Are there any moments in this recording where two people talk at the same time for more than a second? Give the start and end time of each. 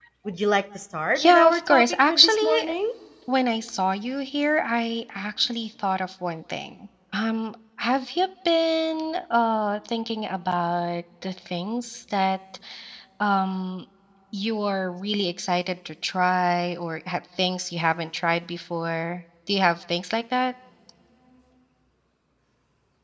1.1-2.7

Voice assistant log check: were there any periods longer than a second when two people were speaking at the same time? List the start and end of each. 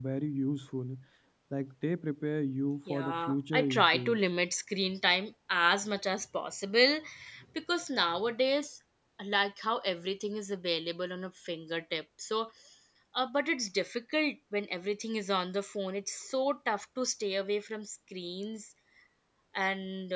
2.9-4.2

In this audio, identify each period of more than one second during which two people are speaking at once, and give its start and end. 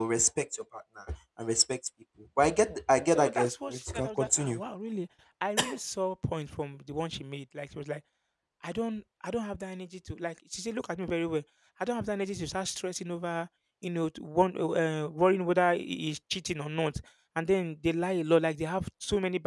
3.1-4.6

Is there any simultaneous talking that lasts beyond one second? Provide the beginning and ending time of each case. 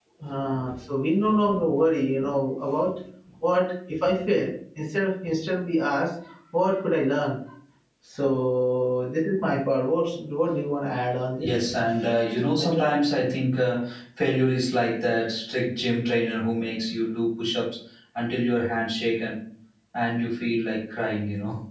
none

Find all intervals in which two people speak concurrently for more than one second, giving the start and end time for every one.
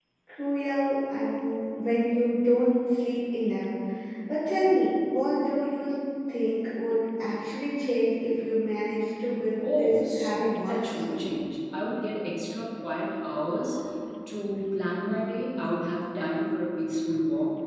9.8-11.3

